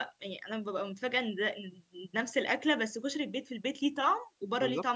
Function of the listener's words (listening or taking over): taking over